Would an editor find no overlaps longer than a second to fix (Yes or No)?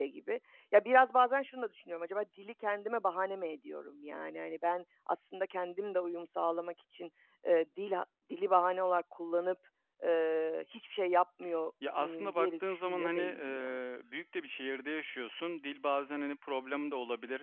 No